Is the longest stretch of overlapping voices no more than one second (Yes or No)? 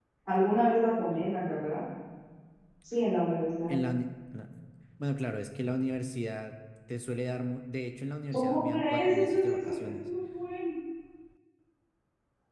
No